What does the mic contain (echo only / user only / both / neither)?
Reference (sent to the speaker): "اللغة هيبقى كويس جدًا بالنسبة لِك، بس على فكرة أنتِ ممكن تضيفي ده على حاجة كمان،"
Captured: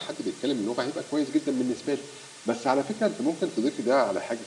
echo only